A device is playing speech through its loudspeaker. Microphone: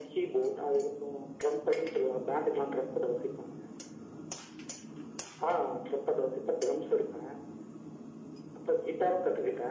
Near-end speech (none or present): none